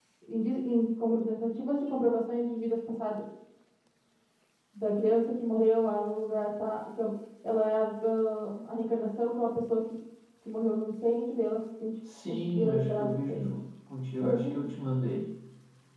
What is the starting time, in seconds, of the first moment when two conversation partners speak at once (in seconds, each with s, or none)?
12.3 s